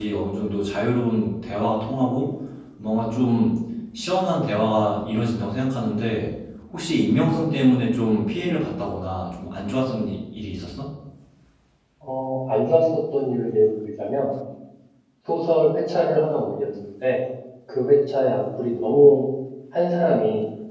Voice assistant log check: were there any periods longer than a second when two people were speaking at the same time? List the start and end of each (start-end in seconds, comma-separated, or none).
none